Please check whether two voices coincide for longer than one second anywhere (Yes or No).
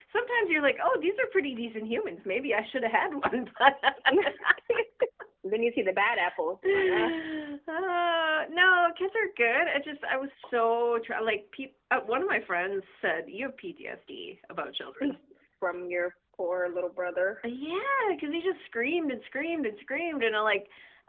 No